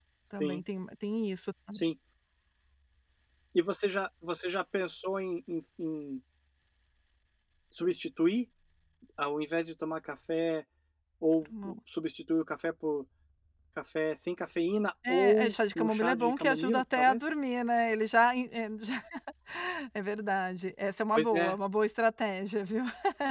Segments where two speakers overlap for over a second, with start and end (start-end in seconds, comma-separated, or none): 15.1-17.3